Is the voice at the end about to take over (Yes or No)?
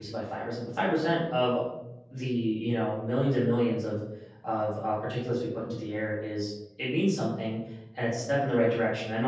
No